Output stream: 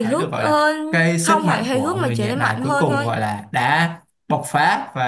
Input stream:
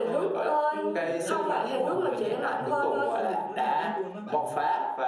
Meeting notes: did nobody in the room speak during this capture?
No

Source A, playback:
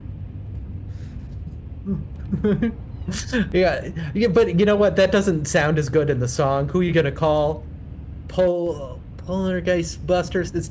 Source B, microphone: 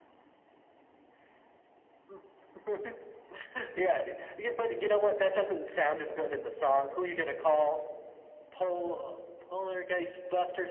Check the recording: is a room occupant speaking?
No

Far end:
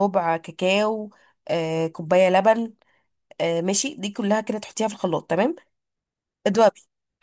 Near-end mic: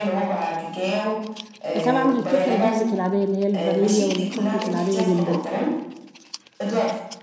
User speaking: Yes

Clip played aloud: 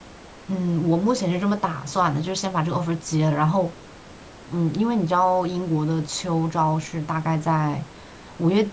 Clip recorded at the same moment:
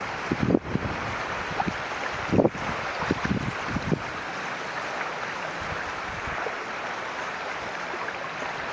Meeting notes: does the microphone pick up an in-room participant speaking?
No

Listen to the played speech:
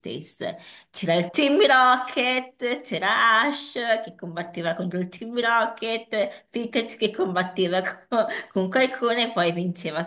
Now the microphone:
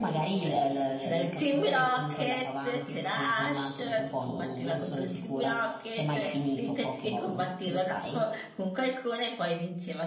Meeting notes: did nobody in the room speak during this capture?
No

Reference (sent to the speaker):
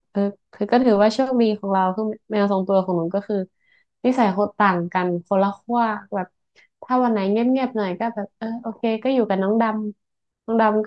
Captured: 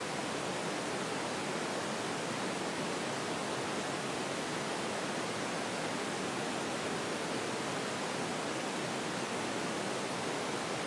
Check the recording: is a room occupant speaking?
No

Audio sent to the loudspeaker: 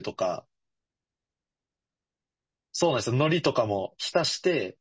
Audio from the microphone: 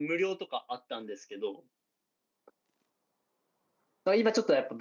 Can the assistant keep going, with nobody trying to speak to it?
No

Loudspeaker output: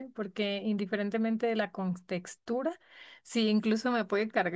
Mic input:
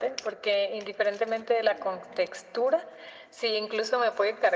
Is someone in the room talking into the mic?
No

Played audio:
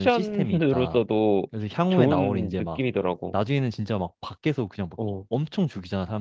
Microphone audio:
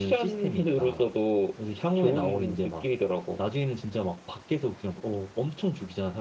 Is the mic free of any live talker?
Yes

